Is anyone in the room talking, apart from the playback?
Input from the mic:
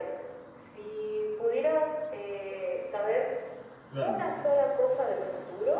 Yes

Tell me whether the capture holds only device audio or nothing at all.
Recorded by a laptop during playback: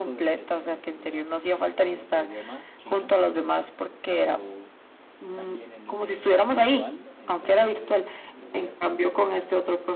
No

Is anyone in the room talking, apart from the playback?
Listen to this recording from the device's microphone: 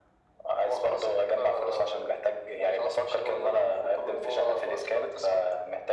No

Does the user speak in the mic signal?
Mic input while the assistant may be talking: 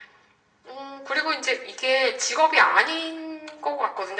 No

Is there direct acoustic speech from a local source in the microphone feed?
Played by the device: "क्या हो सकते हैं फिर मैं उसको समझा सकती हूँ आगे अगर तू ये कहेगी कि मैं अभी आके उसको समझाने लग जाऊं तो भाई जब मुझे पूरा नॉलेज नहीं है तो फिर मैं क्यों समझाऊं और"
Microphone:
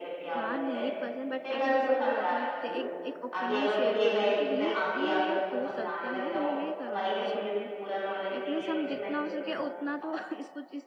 Yes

